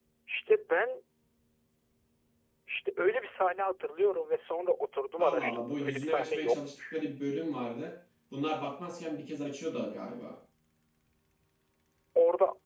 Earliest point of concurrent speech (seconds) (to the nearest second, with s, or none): 5 s